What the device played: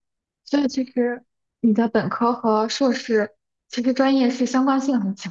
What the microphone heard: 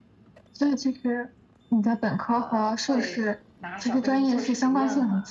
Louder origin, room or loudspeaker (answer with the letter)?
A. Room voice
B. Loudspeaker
B